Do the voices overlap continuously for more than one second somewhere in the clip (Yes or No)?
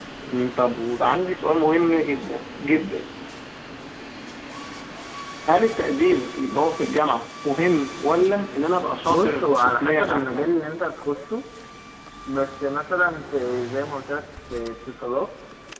Yes